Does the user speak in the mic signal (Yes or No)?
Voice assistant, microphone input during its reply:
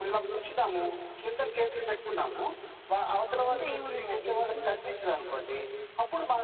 Yes